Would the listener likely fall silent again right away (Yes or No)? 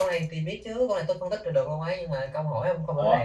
No